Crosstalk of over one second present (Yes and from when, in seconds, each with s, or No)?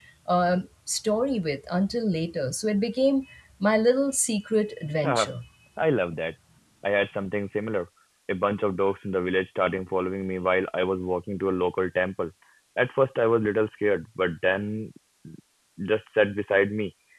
No